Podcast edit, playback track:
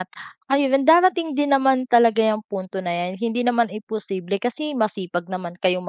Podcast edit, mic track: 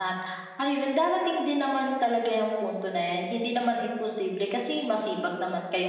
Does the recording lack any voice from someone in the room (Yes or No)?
Yes